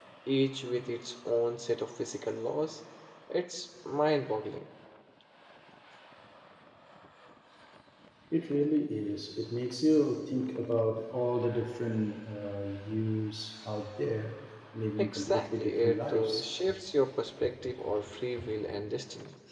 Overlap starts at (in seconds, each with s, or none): 15.0 s